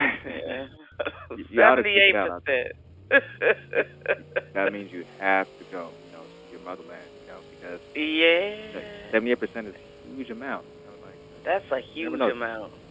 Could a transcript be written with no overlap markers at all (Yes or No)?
No